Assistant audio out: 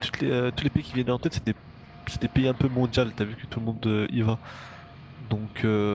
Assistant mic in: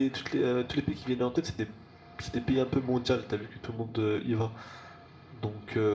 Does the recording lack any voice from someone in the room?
Yes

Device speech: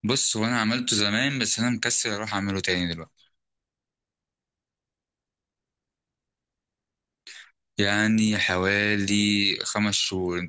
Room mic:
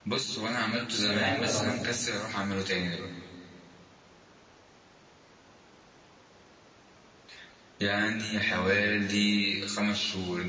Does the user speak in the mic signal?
Yes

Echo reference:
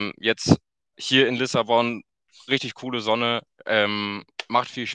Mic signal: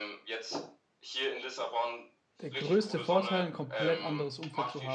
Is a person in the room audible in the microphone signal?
Yes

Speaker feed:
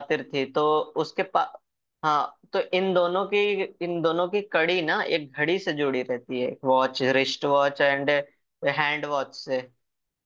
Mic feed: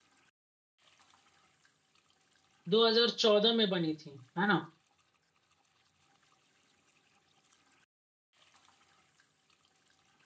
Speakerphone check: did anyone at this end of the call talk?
Yes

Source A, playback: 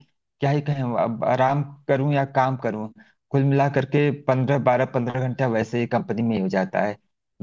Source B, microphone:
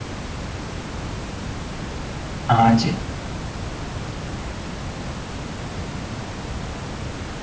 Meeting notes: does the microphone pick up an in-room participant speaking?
Yes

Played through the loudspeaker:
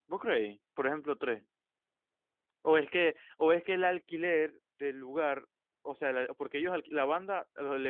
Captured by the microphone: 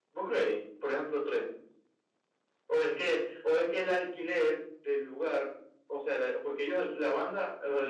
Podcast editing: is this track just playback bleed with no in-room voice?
Yes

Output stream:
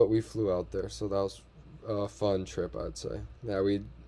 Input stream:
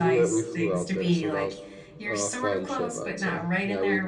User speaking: Yes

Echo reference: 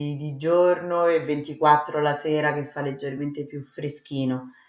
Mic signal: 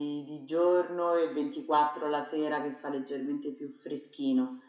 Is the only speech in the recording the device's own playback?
Yes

